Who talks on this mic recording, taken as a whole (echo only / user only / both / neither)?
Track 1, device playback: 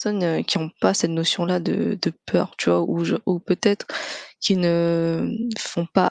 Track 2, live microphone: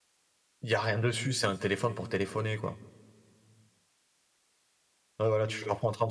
user only